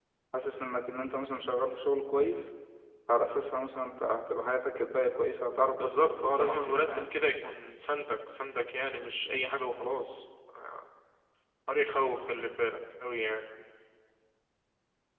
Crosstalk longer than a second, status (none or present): present